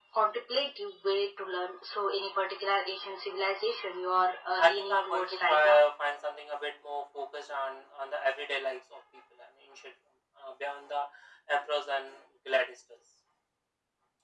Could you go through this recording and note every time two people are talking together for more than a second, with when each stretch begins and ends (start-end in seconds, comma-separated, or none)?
4.6-5.8